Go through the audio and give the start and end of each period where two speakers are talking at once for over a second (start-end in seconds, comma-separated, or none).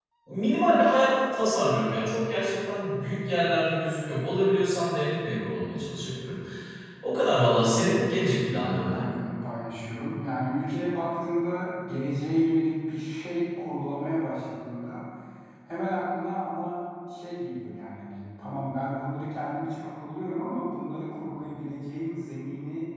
7.6-9.1